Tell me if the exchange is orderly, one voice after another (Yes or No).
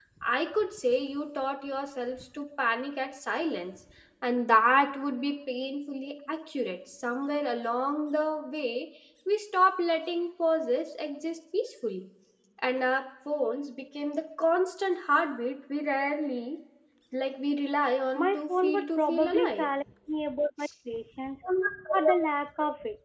No